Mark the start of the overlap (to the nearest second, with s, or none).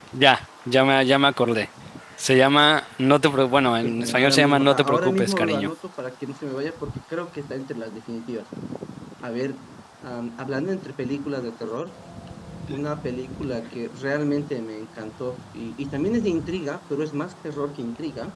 4 s